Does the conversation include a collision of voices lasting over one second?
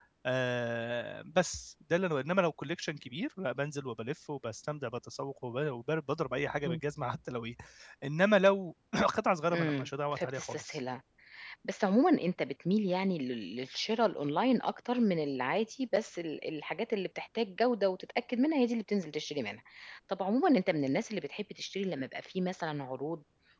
Yes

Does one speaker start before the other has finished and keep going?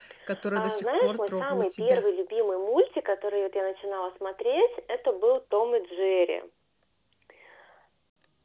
Yes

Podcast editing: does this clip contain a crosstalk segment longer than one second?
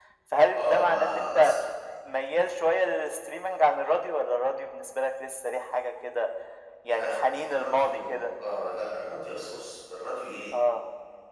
Yes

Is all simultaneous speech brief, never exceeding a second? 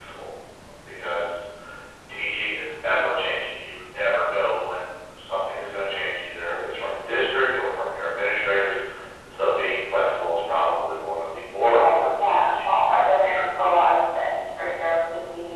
No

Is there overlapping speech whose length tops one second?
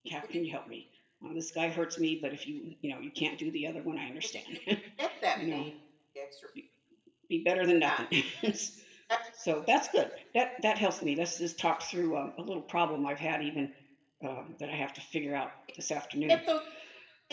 No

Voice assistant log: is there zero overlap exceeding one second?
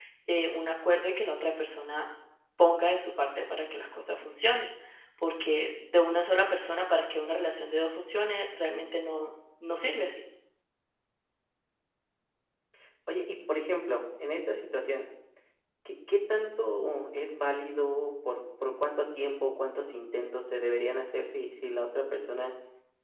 Yes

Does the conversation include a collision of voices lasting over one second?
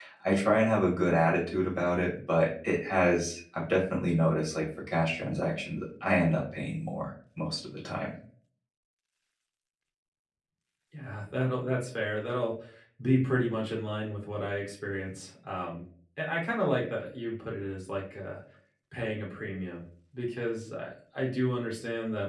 No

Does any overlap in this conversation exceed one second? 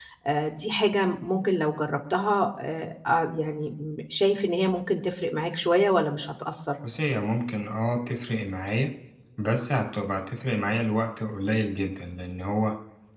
No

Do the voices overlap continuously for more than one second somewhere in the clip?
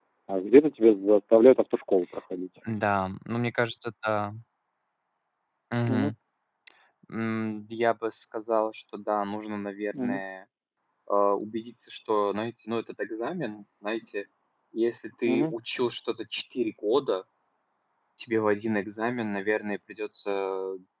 No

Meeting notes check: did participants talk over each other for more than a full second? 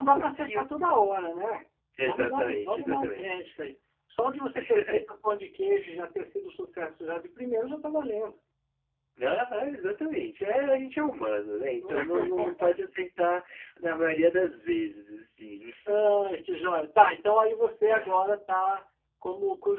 Yes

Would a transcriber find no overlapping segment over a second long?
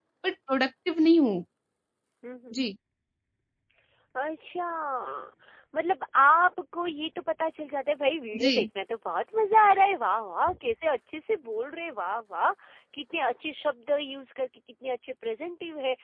Yes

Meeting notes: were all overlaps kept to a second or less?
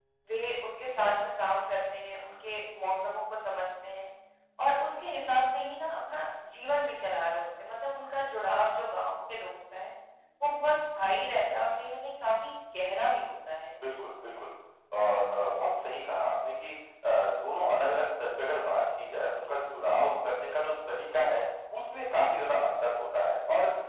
Yes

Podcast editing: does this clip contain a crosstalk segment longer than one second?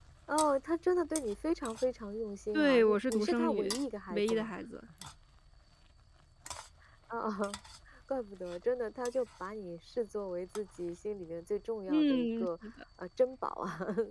Yes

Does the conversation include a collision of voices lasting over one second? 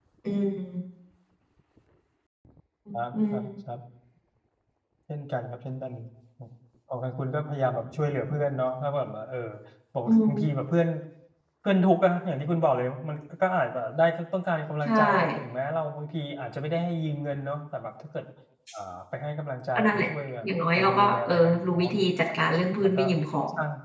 Yes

